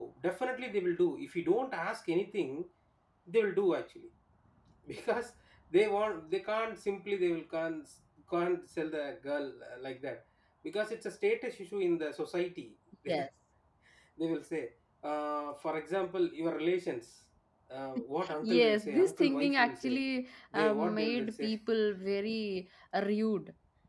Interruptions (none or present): present